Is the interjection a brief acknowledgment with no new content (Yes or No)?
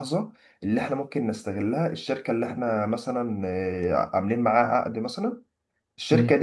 Yes